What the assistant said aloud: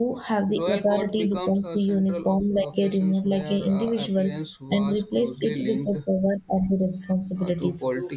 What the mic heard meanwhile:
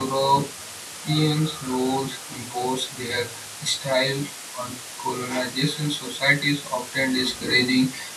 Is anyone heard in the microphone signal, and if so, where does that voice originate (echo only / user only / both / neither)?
user only